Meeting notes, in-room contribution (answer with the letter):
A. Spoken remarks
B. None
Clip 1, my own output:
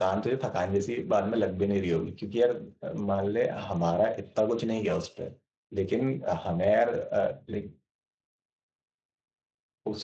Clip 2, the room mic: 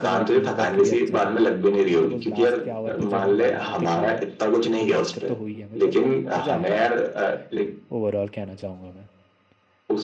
A